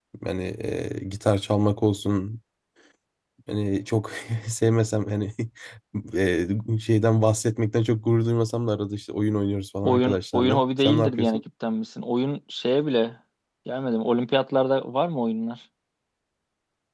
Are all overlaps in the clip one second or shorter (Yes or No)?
No